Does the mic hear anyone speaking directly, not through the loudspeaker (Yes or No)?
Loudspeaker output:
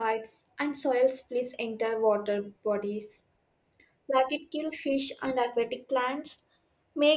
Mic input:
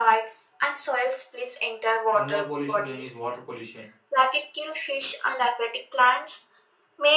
Yes